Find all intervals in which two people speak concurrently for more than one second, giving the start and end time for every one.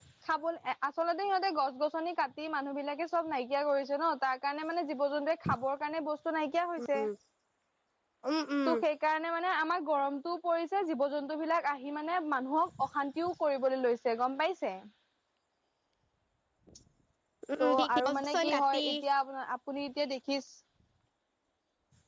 17.6-18.8

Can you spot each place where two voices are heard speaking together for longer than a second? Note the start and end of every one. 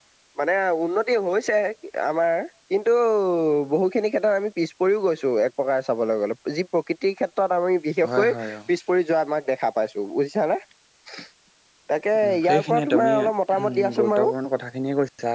12.2-14.3

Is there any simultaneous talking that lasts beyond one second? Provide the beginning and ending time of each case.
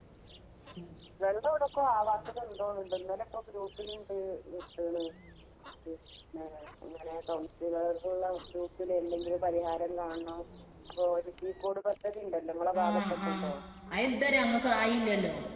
none

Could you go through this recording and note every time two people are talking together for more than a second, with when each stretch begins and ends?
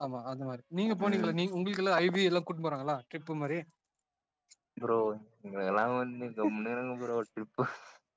none

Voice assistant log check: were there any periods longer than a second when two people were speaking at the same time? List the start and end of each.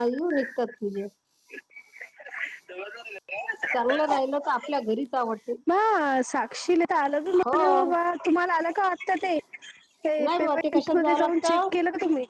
10.3-11.6

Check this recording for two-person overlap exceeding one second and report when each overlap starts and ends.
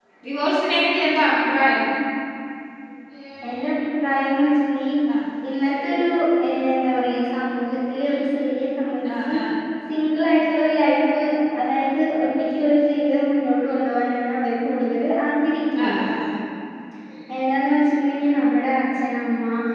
none

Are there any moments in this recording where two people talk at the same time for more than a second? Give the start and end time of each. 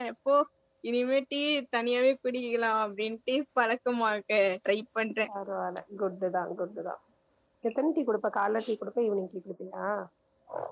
none

